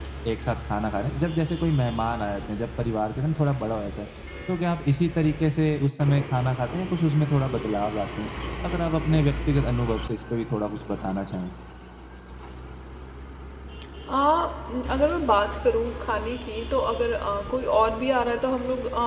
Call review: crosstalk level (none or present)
none